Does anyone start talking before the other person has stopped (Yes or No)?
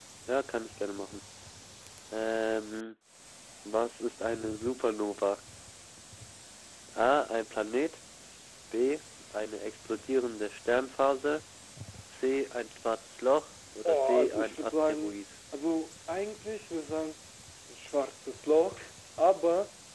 Yes